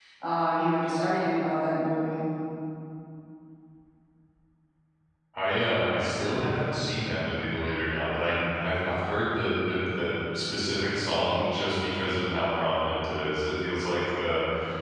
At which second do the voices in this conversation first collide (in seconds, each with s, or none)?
none